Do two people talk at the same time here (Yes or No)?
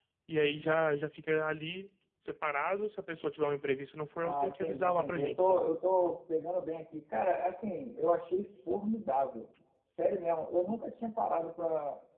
Yes